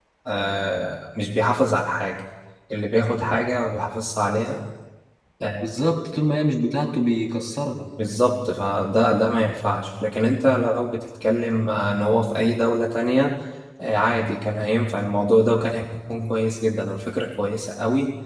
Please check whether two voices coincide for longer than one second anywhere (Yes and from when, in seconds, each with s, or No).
No